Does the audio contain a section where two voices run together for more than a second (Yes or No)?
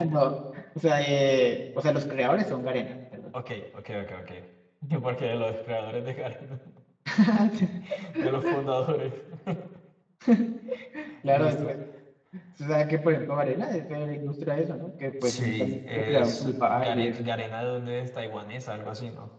Yes